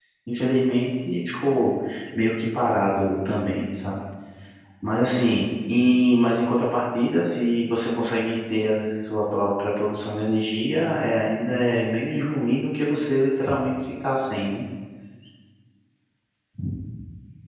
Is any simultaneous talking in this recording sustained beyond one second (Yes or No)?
No